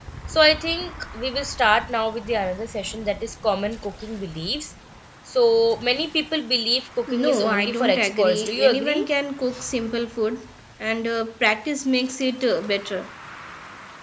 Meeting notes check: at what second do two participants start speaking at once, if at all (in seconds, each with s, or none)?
7.1 s